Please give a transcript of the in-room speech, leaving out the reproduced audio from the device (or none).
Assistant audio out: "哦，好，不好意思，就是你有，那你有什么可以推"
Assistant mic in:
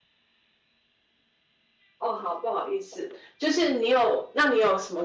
none